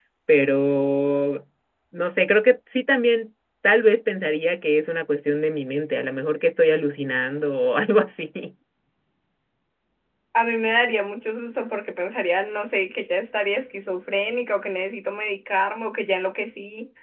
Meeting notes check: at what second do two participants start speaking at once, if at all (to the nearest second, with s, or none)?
none